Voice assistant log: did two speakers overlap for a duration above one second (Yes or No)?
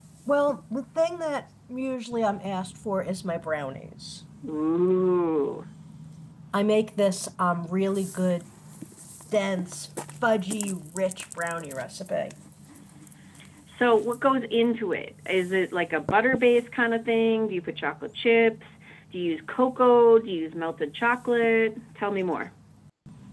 No